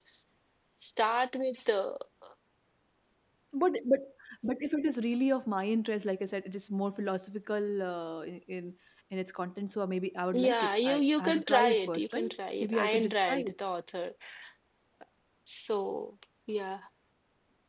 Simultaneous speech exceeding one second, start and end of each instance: 10.3-13.5

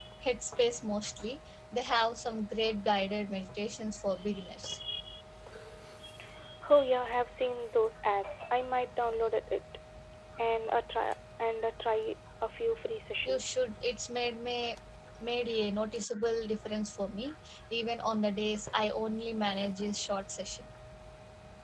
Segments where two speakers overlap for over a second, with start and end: none

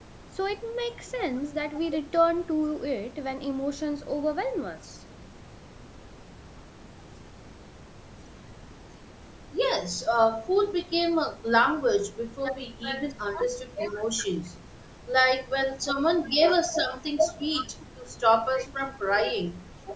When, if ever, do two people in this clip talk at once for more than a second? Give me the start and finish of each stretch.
none

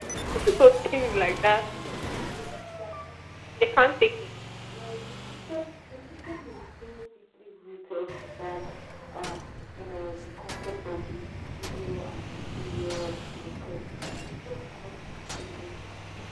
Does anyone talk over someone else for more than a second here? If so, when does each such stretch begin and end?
none

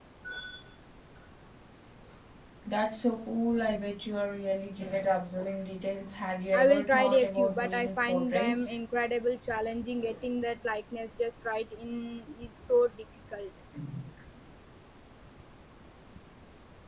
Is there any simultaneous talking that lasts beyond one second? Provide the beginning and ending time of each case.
6.5-8.8

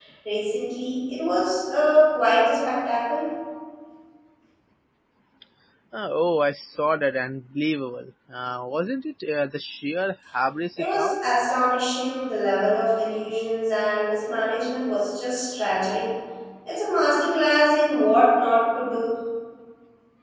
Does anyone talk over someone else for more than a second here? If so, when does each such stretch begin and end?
none

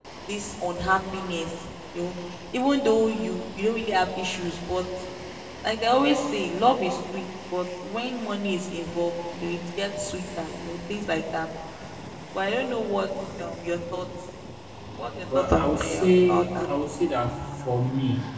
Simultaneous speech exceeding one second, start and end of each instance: 15.4-16.6

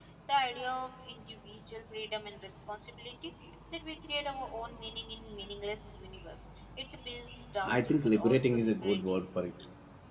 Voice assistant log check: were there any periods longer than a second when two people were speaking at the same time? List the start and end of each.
7.8-9.0

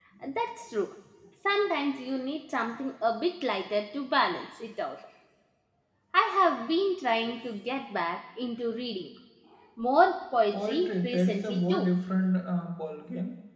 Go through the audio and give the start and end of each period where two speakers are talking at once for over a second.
10.5-11.9

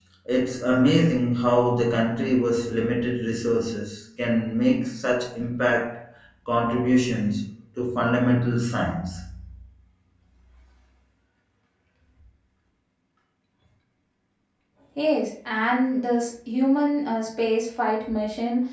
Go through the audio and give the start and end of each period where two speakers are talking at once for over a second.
none

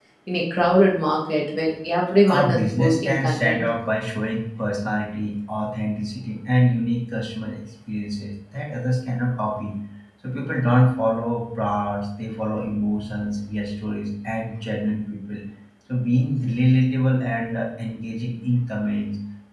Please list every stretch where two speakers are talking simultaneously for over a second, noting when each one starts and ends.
2.3-3.6

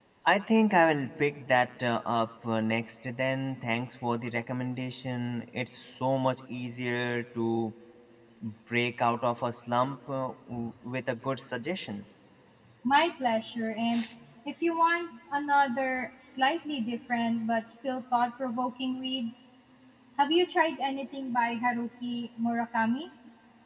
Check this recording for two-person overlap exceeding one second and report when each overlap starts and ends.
none

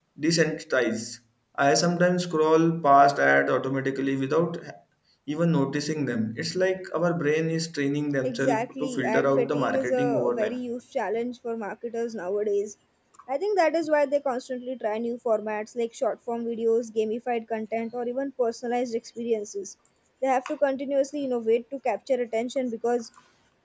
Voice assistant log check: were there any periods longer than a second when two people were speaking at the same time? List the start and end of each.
8.2-10.6

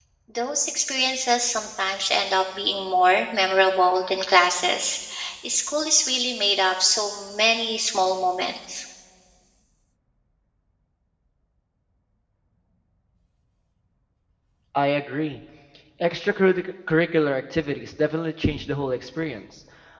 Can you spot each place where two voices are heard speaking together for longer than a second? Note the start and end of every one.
none

